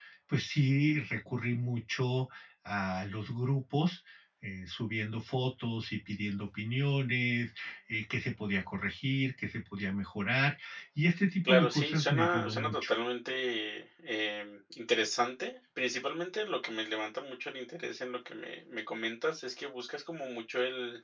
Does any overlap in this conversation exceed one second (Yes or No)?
Yes